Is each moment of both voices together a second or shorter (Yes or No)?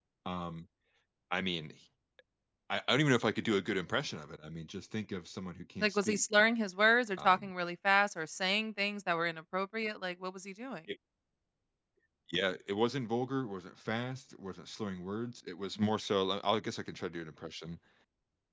Yes